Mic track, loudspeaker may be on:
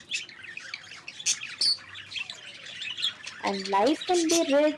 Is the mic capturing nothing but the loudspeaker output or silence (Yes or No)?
No